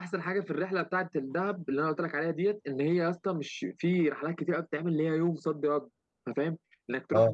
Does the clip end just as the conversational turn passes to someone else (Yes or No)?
No